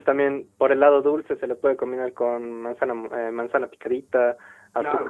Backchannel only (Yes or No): No